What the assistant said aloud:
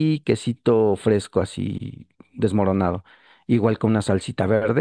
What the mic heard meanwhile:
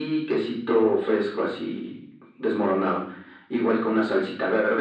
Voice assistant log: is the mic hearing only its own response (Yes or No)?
Yes